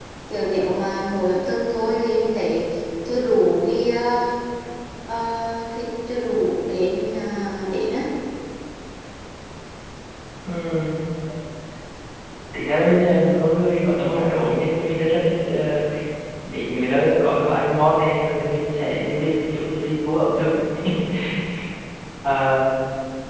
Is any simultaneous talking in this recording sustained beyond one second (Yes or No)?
No